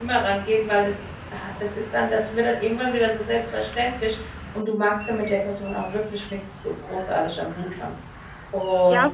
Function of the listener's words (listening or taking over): taking over